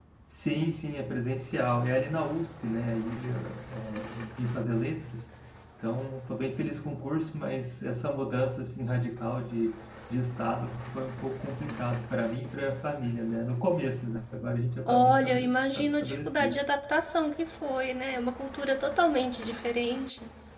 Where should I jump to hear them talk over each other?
15 s

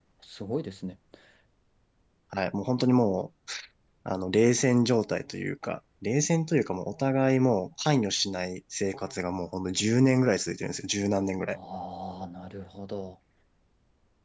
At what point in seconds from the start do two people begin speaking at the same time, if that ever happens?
none

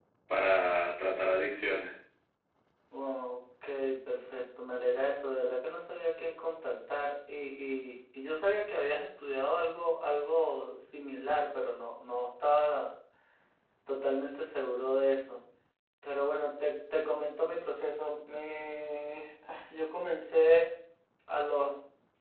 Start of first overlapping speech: none

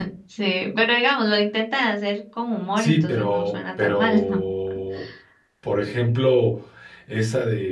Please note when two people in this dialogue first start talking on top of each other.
3 s

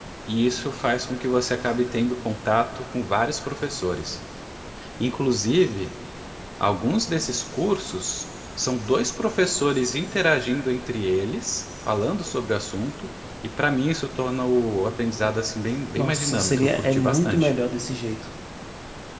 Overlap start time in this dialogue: 16 s

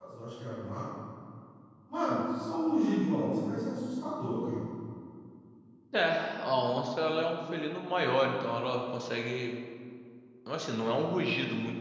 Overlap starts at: none

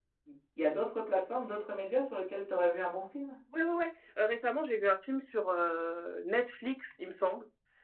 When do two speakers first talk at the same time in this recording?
none

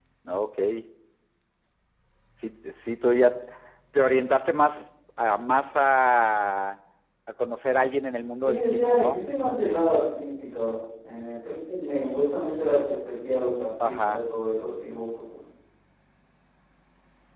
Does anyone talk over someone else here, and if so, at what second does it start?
8 s

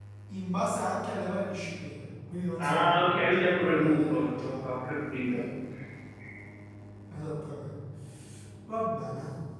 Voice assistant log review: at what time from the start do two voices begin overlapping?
3 s

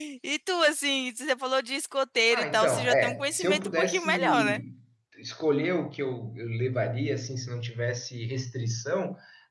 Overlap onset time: 2 s

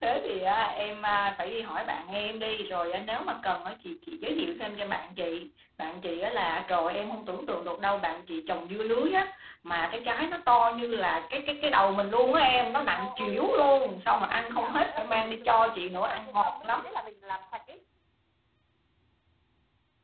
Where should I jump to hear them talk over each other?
13 s

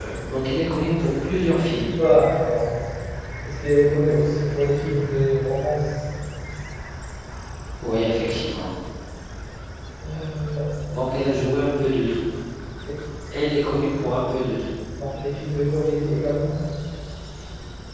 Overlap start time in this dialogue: none

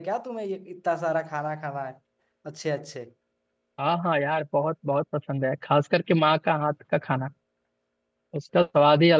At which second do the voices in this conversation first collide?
none

